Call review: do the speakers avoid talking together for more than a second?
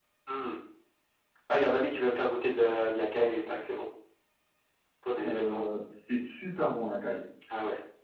Yes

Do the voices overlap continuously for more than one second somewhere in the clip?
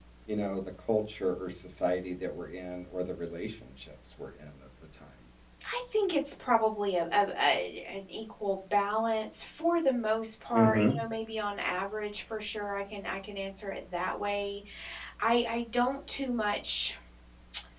No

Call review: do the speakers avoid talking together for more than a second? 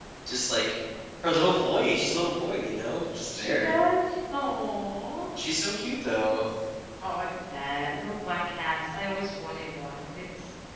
Yes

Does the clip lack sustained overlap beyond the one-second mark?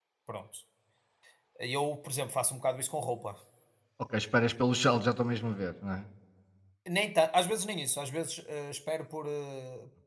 Yes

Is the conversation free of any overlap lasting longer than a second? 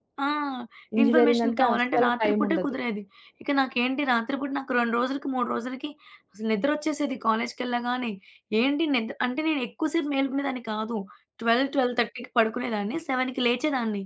No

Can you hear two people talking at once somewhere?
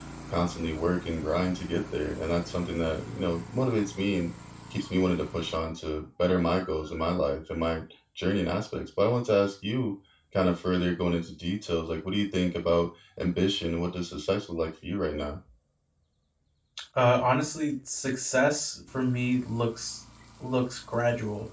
No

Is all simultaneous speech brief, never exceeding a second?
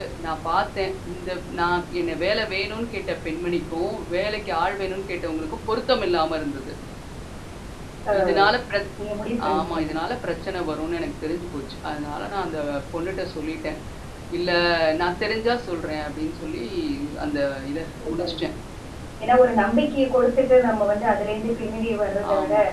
Yes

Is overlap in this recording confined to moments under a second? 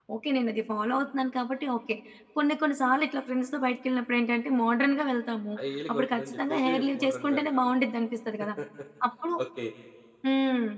No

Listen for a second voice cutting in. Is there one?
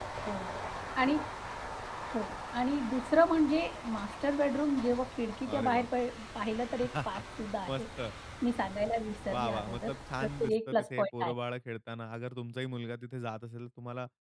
Yes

